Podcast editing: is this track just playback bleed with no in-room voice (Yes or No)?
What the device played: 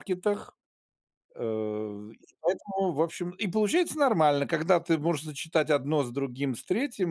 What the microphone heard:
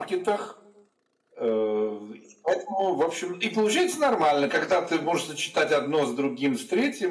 Yes